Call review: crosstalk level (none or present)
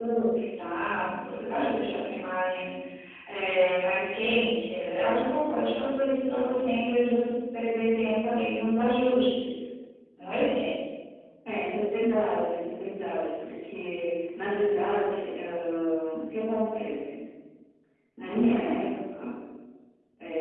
none